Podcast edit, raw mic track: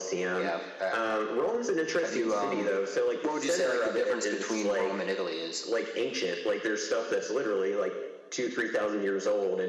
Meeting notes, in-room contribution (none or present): none